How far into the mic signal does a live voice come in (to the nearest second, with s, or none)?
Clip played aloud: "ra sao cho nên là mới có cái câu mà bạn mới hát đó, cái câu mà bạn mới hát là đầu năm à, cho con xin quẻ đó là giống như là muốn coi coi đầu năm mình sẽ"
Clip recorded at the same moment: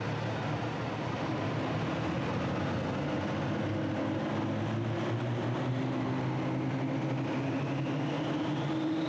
none